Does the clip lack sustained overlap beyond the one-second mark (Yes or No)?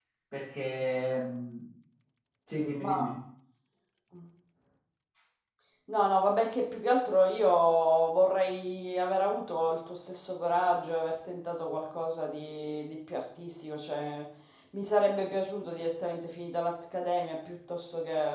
Yes